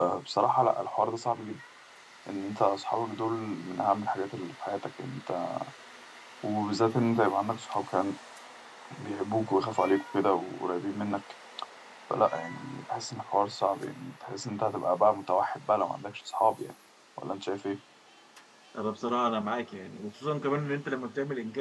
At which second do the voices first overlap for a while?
none

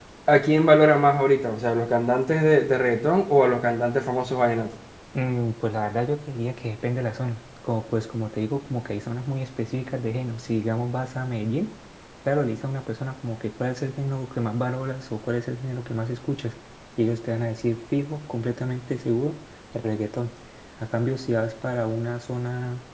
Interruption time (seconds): none

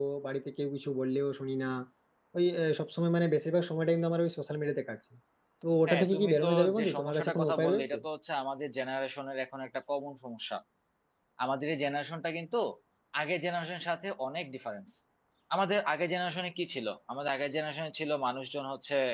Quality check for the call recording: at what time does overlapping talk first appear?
6 s

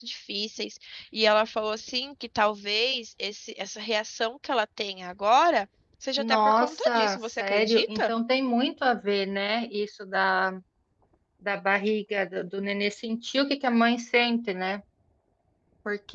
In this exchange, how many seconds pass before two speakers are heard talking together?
6 s

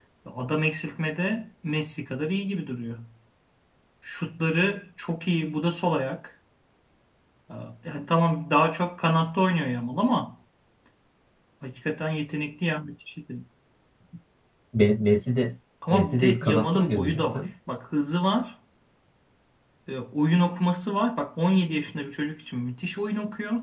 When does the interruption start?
16 s

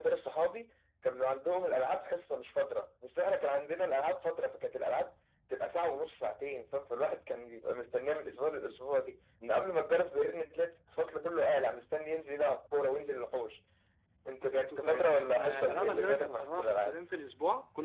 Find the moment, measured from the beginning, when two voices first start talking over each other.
14 s

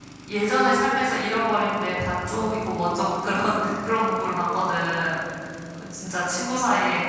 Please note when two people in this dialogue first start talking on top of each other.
none

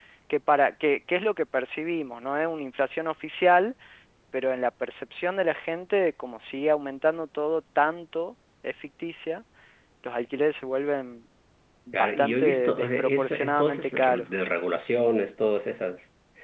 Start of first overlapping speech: 12 s

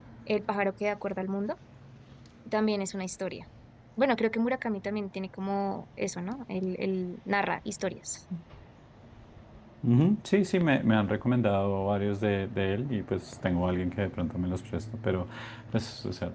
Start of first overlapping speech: none

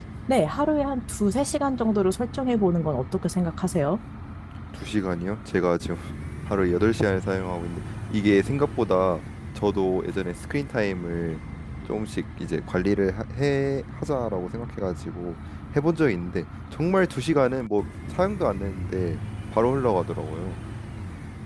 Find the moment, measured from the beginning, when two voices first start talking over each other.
none

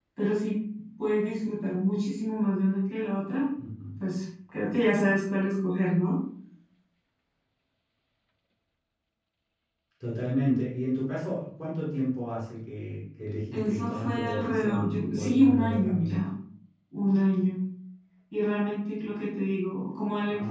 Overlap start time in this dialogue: 14 s

